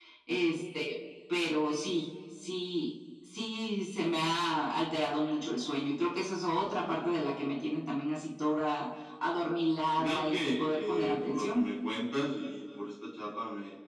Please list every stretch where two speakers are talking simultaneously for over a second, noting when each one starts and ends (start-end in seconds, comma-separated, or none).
10.0-11.6